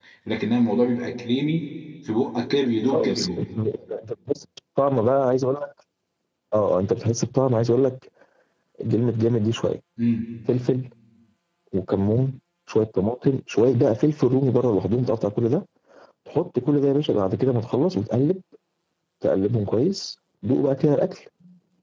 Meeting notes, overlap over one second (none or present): none